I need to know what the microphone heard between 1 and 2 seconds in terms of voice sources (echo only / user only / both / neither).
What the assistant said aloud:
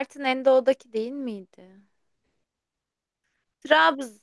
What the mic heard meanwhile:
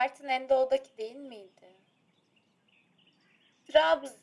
echo only